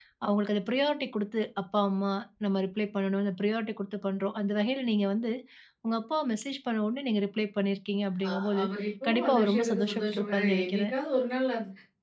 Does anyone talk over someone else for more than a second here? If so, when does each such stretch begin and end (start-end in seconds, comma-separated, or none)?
9.1-10.9